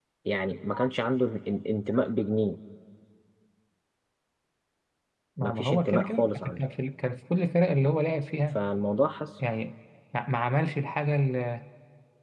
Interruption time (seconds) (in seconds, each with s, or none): 5.4 s